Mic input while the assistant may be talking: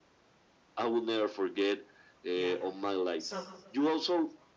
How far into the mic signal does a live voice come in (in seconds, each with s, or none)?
2.3 s